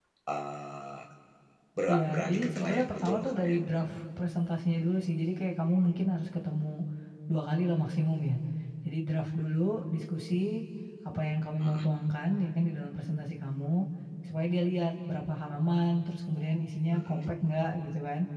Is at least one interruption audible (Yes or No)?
Yes